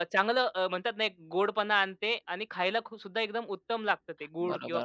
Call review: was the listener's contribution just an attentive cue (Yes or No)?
No